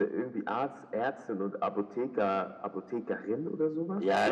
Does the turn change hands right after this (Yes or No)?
Yes